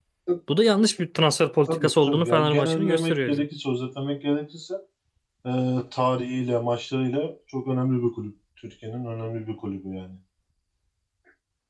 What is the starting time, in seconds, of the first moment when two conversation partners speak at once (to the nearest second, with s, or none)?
2 s